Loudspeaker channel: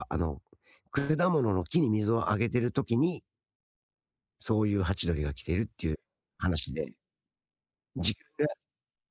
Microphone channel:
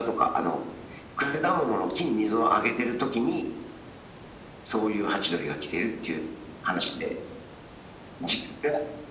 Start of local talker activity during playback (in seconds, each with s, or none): none